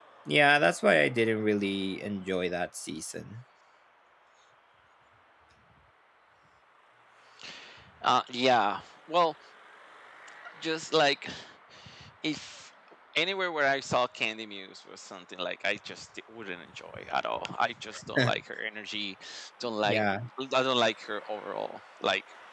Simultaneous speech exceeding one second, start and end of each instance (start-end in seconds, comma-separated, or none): none